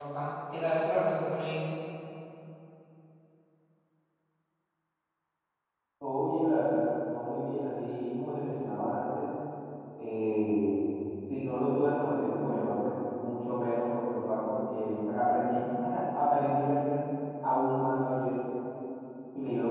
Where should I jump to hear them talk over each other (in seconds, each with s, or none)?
none